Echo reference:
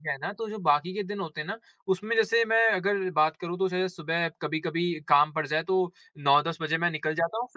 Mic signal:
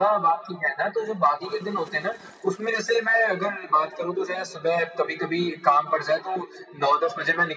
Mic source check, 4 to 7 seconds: echo only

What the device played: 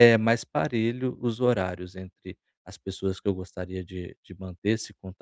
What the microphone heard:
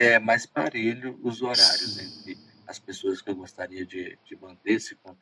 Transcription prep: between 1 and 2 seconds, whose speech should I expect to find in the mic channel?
both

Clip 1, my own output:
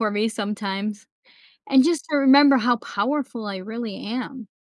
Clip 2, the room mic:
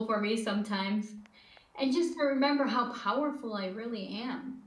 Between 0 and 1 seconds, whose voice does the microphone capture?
echo only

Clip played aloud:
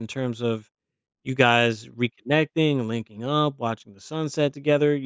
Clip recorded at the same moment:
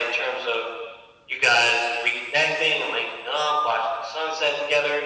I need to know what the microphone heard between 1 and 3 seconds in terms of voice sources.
echo only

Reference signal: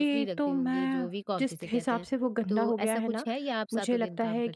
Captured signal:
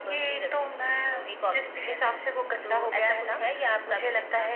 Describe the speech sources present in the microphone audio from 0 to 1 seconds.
echo only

